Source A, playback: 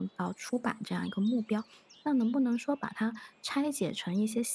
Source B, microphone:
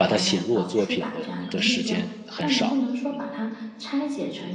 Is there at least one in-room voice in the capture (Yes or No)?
Yes